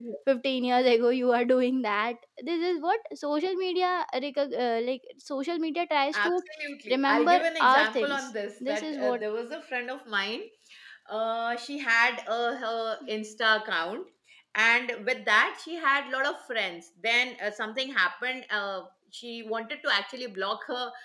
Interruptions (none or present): present